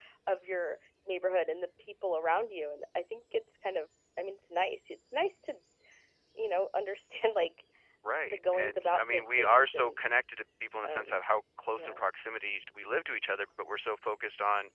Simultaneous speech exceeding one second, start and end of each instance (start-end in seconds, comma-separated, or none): 8.3-10.0